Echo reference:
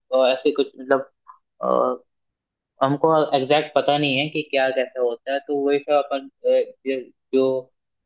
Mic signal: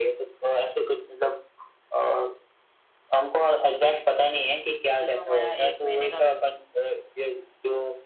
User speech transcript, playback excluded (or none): अभी तो हमारा एक महीने का वे,